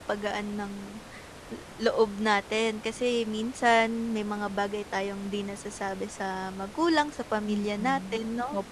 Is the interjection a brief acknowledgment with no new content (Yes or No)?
No